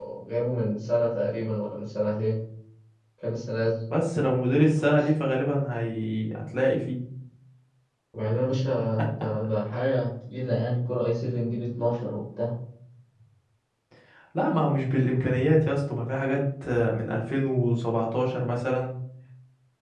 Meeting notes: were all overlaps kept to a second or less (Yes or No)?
Yes